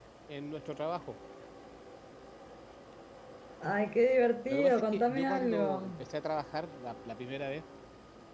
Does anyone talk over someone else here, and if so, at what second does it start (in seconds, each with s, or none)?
4.5 s